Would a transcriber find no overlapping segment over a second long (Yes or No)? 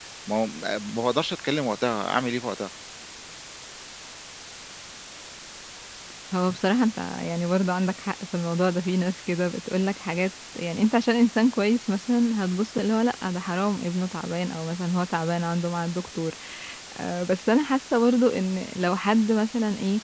Yes